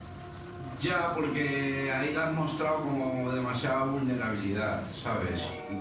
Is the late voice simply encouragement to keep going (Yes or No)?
Yes